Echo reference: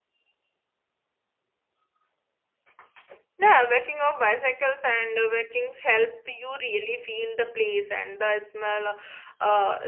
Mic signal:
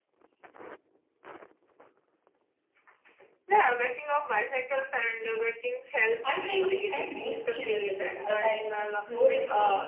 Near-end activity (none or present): present